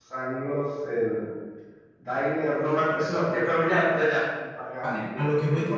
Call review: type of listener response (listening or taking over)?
taking over